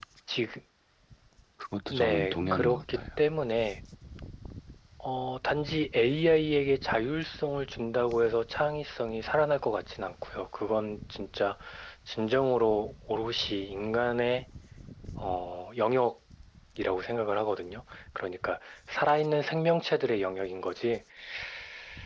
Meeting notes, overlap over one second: present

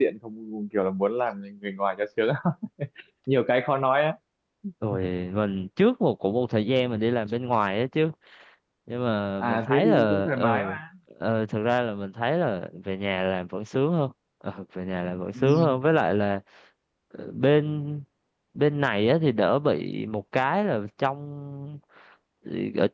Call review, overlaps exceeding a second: present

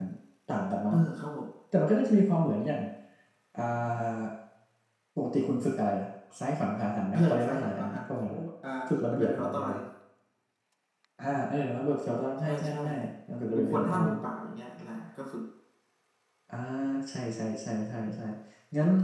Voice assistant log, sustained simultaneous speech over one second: present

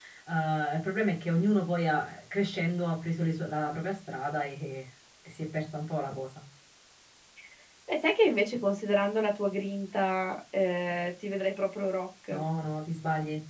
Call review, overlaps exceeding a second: none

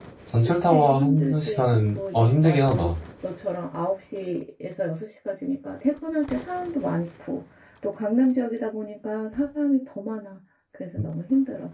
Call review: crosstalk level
present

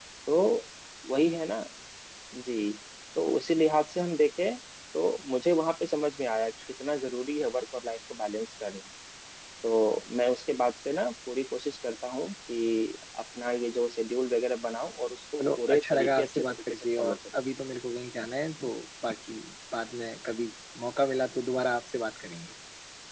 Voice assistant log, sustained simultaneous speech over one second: present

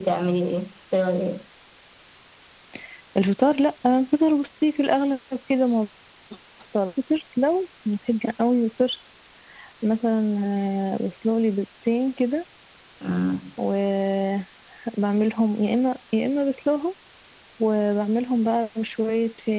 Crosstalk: none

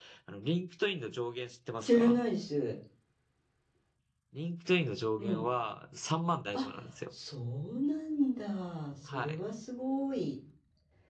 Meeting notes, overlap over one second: none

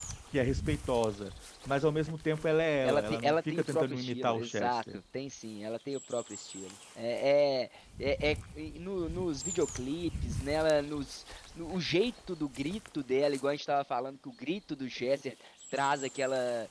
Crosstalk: present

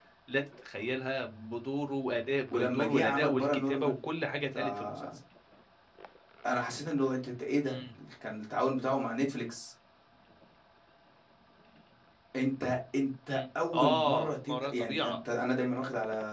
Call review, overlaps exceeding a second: present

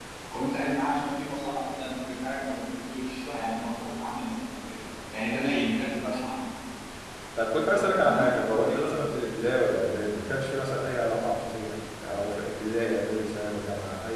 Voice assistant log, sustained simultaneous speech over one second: present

